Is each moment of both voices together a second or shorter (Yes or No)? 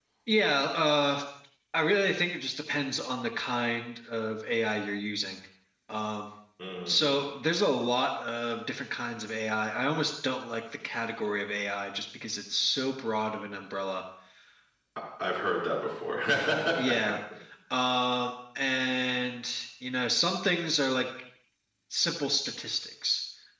Yes